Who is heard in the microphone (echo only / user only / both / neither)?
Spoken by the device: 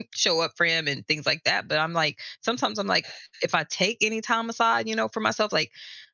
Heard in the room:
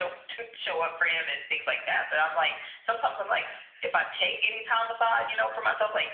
echo only